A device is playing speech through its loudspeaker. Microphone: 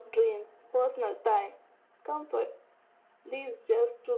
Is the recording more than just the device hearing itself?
No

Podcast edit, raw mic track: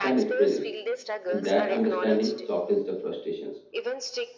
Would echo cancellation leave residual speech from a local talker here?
Yes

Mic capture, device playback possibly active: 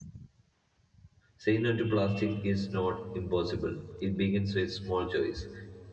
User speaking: Yes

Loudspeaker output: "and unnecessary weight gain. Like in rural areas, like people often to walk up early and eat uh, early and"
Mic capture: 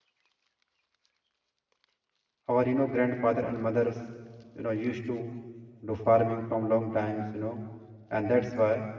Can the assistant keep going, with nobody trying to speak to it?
No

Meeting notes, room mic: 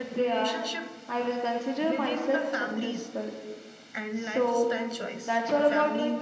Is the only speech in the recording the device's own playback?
No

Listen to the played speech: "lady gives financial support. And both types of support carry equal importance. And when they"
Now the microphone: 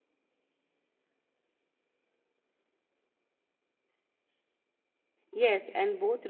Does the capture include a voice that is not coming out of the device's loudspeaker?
Yes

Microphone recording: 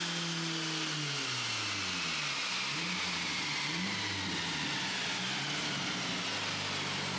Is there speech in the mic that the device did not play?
No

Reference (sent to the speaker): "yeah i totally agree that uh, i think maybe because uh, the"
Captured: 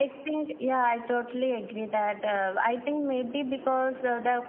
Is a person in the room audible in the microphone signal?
No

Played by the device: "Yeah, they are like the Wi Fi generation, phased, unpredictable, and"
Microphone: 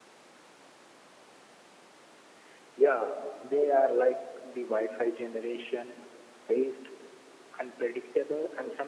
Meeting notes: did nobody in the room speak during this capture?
Yes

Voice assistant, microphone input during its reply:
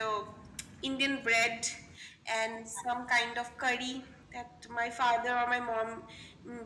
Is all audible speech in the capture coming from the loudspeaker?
Yes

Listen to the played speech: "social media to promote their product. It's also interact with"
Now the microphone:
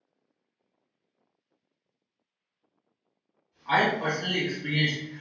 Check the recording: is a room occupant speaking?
Yes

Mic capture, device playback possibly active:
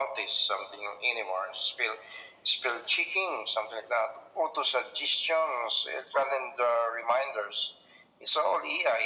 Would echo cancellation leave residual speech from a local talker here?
No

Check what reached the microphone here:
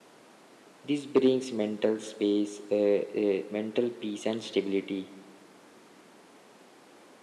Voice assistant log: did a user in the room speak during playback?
Yes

